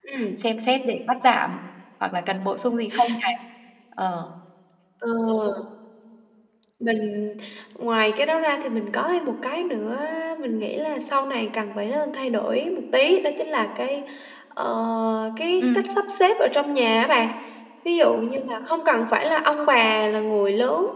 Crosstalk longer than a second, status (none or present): none